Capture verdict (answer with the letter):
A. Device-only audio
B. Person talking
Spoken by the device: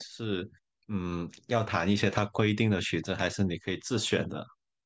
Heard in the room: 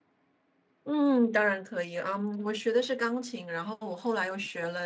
B